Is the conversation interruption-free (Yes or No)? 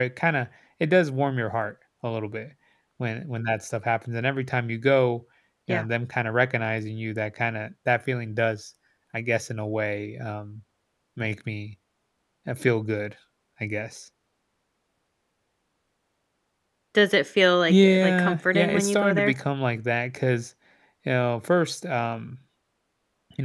No